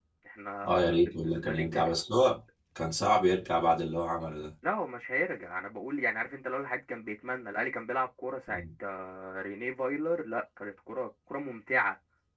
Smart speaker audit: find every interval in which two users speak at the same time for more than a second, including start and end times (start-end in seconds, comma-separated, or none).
0.6-1.9